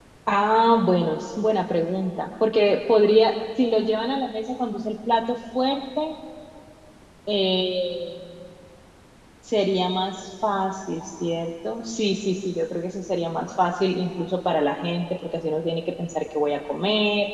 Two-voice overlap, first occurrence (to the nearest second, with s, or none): none